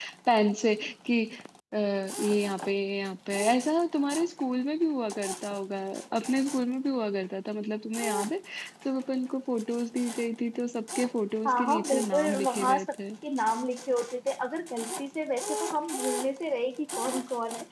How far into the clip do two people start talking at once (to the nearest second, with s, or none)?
11 s